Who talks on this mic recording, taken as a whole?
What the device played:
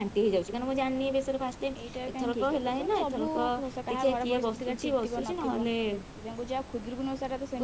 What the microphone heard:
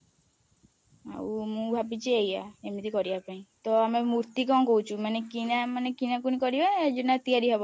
user only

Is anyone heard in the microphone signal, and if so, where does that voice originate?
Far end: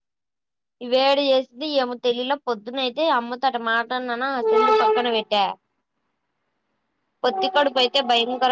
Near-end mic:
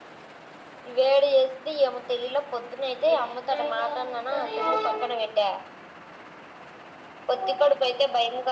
both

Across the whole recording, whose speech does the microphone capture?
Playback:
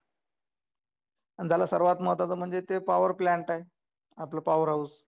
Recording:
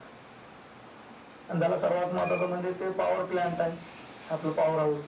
echo only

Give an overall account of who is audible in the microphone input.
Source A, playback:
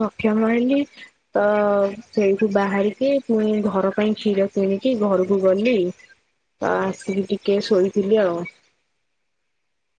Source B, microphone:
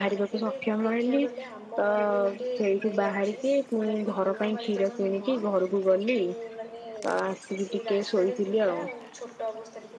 both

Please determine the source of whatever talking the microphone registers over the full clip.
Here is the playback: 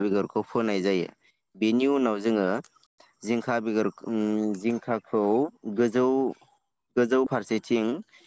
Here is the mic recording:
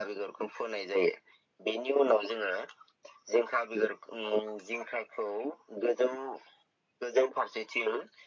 echo only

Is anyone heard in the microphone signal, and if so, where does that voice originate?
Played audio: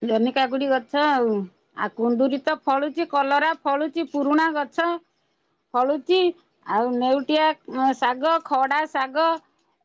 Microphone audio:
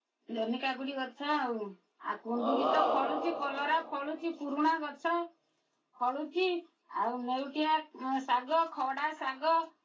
both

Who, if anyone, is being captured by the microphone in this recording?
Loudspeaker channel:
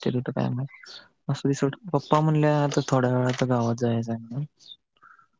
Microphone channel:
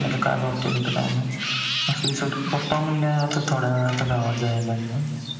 echo only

